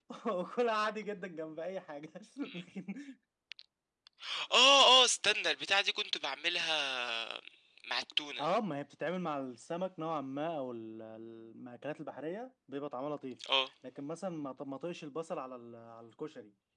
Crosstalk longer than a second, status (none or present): none